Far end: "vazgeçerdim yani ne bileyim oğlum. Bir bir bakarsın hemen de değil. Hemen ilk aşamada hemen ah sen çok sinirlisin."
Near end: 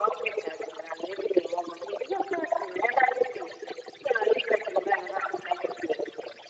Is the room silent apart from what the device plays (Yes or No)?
Yes